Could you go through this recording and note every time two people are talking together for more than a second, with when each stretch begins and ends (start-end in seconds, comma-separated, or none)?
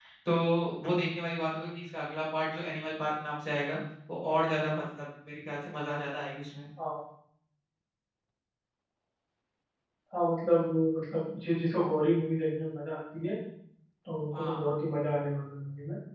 none